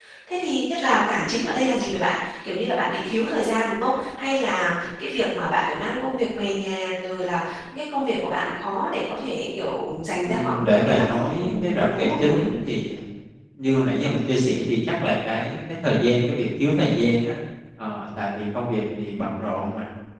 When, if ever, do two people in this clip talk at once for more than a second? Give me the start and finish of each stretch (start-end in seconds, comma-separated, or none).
10.2-12.4